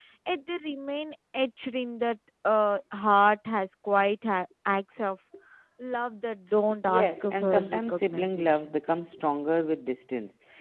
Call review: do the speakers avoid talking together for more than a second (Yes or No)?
No